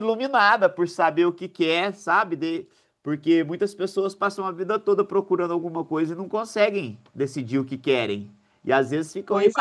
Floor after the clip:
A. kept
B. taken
A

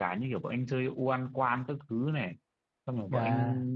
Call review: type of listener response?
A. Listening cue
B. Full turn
A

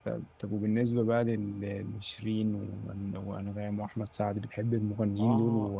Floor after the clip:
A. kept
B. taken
B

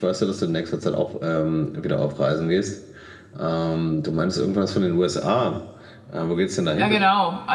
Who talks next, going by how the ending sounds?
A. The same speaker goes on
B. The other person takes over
B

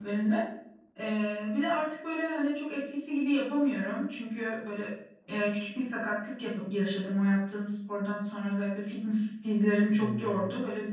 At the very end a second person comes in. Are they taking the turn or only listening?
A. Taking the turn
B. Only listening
B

